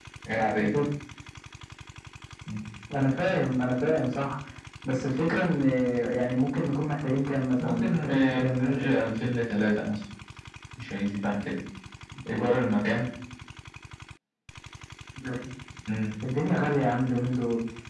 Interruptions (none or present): present